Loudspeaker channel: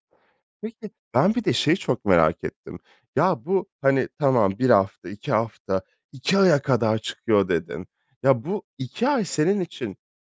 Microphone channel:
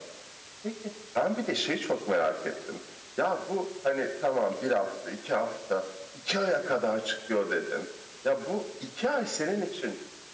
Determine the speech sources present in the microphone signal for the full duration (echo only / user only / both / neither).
echo only